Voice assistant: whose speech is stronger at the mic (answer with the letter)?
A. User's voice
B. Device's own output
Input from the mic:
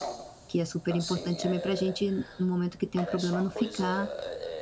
A